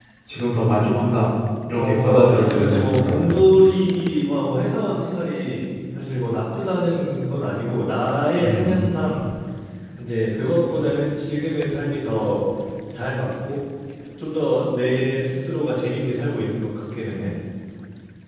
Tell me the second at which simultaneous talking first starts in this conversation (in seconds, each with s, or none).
1.8 s